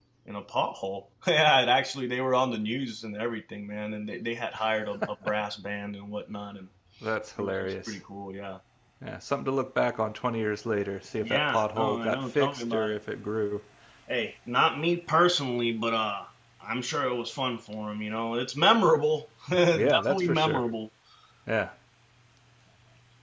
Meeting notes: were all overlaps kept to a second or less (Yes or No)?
No